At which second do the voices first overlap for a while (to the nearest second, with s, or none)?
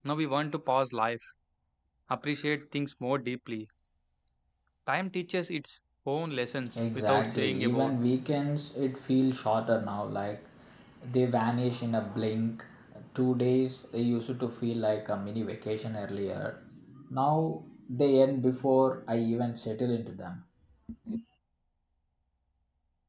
7 s